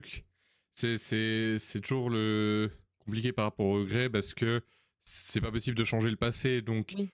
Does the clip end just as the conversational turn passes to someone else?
No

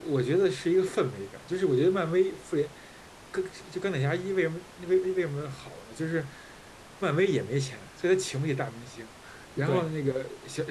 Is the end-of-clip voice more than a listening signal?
No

